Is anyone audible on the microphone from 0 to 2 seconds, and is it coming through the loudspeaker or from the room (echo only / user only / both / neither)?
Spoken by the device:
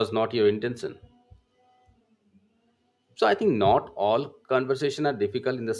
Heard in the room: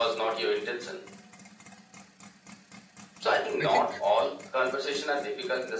echo only